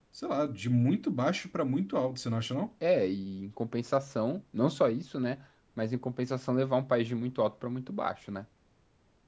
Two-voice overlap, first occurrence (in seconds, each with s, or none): none